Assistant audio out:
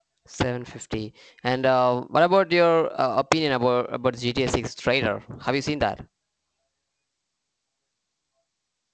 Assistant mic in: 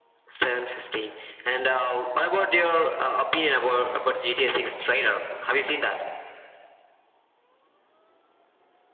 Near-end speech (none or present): none